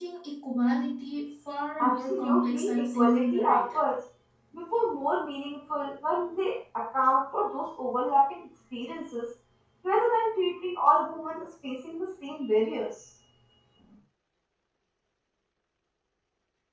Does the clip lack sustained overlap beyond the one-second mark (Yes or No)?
No